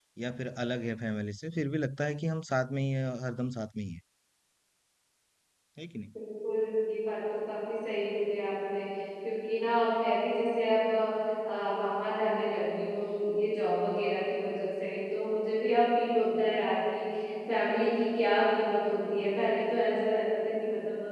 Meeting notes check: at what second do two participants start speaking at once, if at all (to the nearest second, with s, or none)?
none